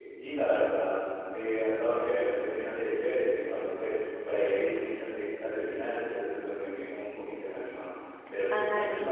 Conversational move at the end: taking over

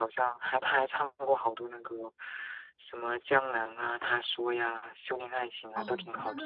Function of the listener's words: taking over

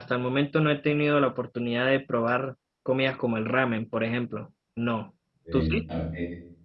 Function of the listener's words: taking over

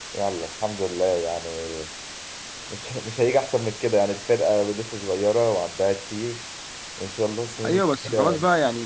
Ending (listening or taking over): taking over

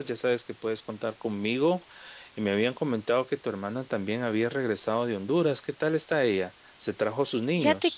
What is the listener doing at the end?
taking over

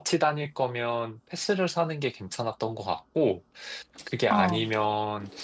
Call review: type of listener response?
listening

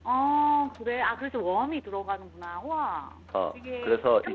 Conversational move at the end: taking over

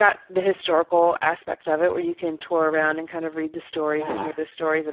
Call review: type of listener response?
listening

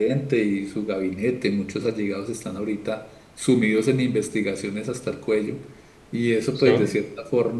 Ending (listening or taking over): listening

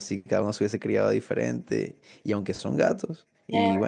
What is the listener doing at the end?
listening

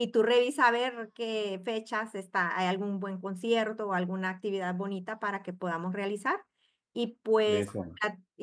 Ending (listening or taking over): listening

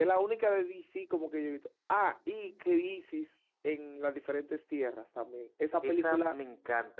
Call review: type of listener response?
taking over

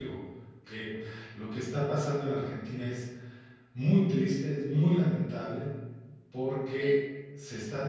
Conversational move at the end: listening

